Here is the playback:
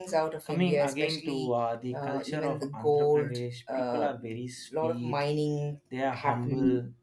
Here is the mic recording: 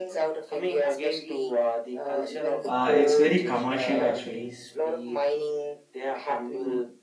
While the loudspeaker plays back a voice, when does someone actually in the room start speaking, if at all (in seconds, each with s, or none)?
2.6 s